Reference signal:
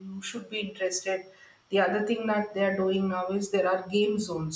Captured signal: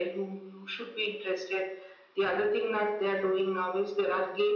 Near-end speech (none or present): none